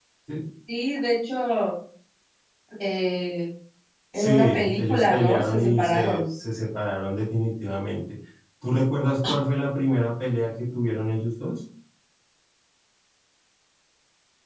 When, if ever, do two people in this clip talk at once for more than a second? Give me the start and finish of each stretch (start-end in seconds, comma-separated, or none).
4.1-6.2